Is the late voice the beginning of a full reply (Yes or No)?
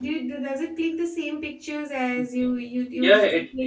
Yes